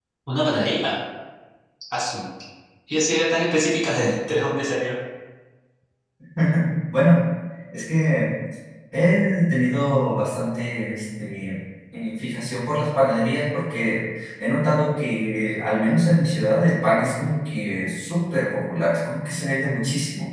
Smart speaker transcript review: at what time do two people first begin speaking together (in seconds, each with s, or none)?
none